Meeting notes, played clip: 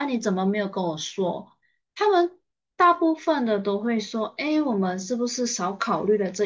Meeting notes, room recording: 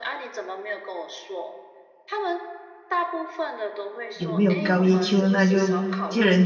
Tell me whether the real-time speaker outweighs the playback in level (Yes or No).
Yes